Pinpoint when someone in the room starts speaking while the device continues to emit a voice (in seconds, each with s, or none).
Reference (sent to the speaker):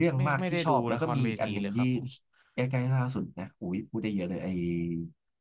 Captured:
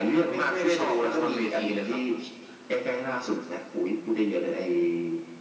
none